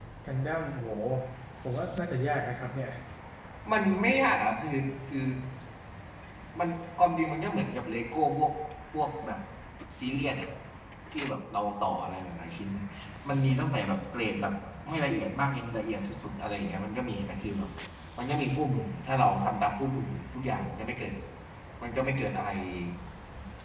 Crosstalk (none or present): none